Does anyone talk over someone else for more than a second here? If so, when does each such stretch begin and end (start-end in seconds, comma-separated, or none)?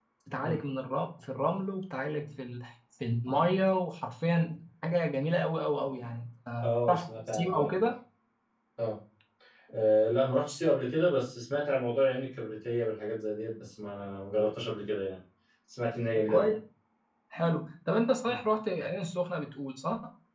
6.6-7.9